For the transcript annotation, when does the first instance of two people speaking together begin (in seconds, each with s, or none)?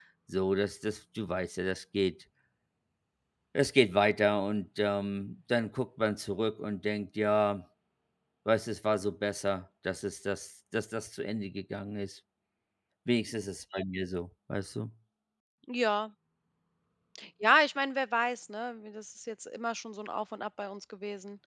none